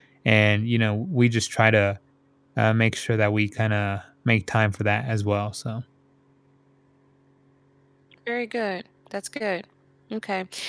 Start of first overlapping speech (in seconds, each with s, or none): none